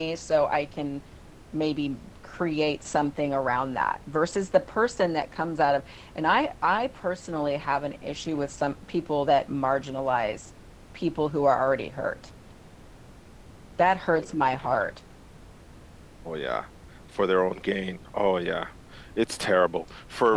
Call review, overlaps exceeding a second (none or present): none